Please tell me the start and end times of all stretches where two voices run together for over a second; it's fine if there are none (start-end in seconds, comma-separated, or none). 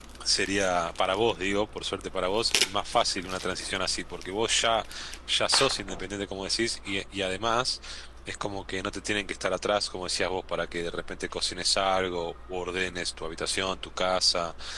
none